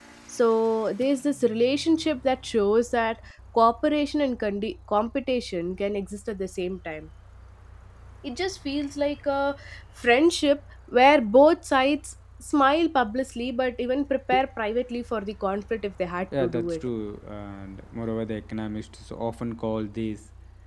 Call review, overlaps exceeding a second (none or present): none